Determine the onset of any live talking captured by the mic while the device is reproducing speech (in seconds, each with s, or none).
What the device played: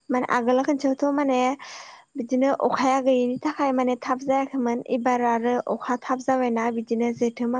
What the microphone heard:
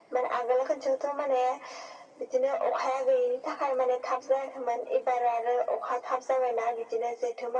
none